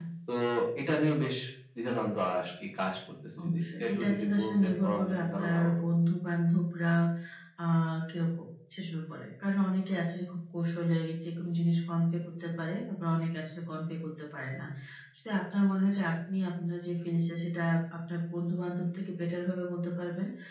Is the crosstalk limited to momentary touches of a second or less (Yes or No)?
No